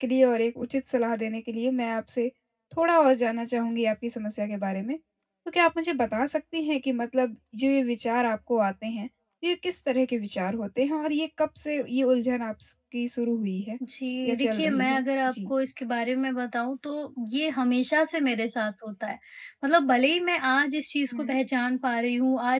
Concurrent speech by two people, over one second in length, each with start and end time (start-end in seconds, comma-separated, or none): 14.2-15.5